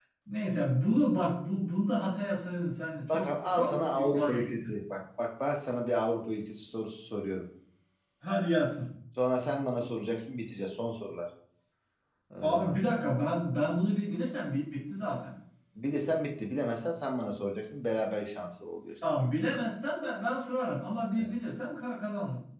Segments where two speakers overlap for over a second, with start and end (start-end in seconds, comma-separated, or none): 3.1-4.8